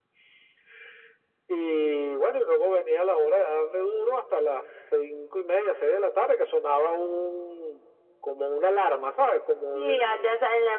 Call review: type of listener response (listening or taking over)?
taking over